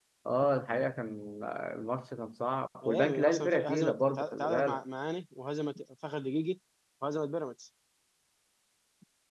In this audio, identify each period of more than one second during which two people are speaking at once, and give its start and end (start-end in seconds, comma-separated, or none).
2.8-4.8